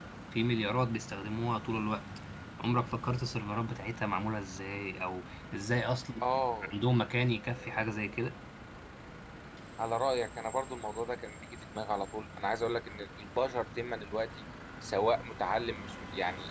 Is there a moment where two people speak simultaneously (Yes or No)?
No